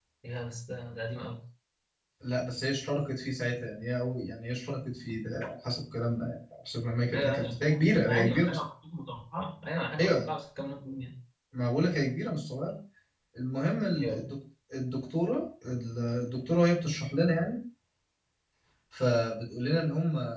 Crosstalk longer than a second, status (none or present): present